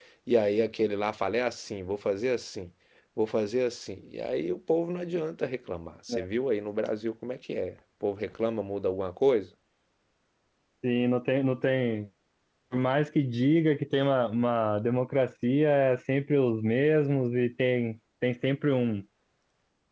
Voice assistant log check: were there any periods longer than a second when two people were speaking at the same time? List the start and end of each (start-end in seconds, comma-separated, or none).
none